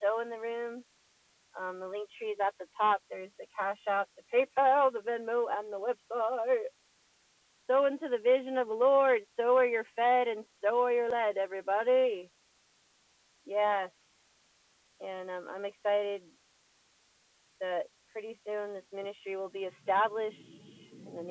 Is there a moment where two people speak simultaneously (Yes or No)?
No